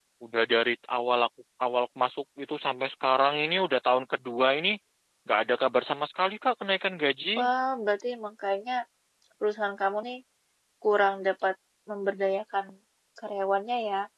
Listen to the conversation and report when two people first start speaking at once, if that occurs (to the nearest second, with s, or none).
none